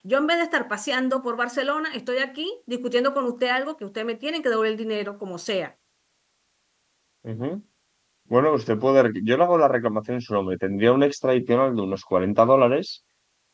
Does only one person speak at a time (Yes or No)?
Yes